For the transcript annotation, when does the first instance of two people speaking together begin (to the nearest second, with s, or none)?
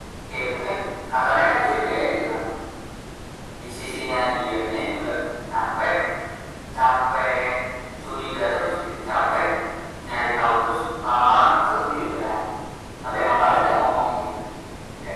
none